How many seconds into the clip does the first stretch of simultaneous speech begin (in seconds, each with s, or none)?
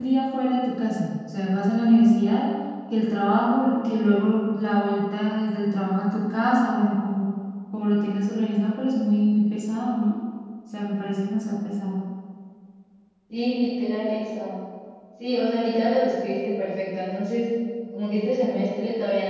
none